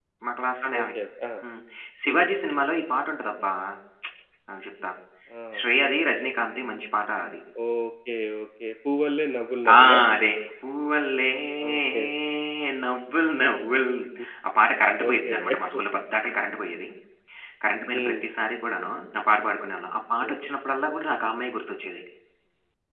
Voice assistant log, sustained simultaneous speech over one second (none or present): none